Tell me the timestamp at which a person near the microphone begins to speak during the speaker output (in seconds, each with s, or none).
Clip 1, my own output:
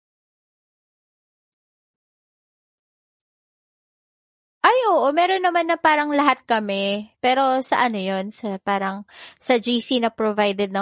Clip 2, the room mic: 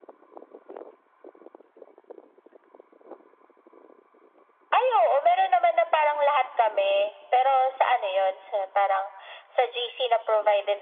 none